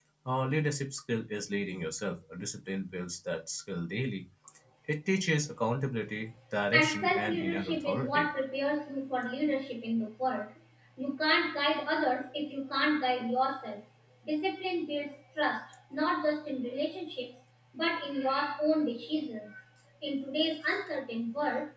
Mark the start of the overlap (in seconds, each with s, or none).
6.7 s